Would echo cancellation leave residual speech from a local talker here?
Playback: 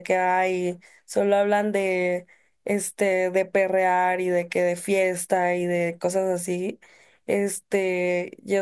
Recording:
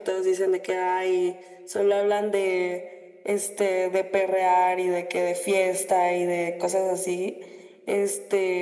No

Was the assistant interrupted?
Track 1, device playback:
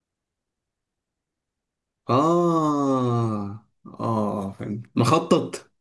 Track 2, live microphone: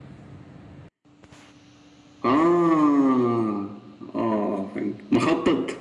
No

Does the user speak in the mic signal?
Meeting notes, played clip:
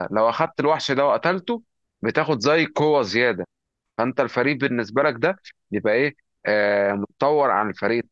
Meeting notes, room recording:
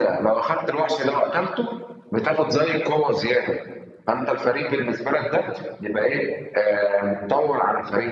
No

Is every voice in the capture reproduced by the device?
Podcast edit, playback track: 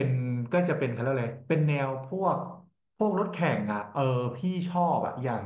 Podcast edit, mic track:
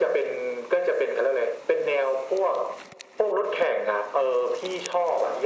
Yes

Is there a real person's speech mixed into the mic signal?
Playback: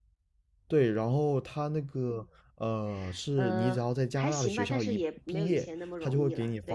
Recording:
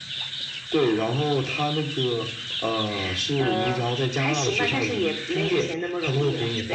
No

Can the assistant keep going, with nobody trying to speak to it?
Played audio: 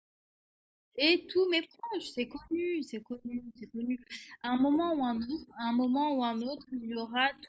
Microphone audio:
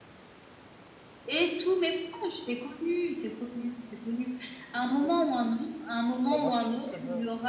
No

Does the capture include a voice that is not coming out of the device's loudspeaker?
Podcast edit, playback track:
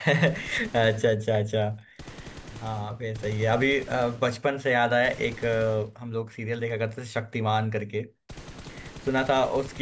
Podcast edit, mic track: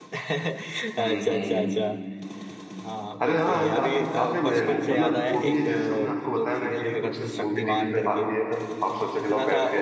Yes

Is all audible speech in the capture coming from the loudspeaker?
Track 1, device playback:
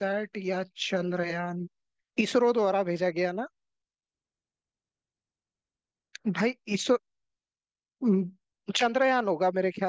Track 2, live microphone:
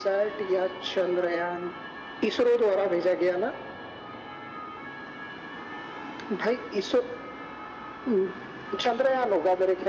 Yes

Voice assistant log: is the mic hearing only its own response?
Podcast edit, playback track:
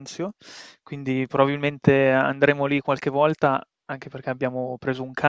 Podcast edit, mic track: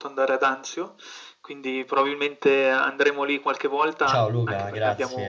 No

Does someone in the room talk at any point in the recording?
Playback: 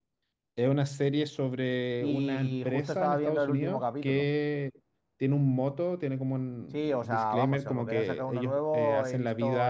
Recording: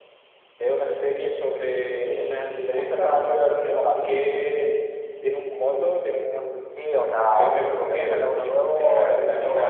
No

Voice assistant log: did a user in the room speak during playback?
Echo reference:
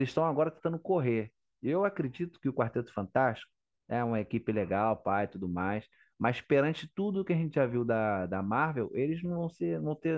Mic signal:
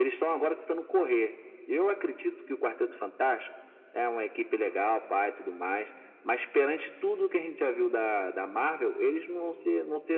No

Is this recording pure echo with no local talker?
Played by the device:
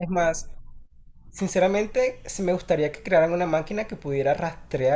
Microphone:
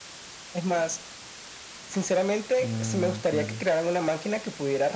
No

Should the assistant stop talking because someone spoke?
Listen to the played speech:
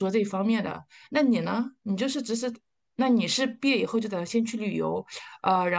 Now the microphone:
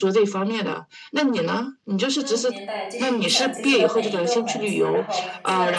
Yes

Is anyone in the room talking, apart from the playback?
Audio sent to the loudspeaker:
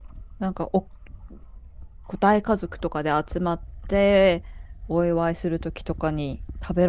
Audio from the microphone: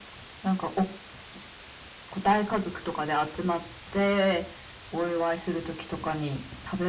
No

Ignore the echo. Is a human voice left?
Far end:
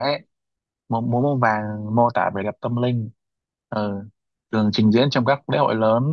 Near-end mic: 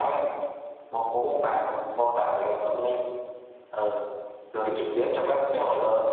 Yes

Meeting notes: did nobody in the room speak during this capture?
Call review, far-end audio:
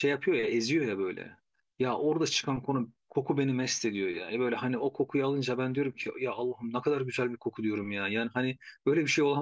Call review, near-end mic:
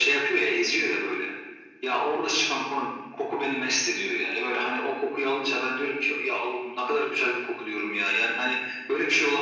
Yes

